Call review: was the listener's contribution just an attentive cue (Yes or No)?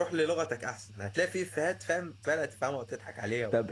No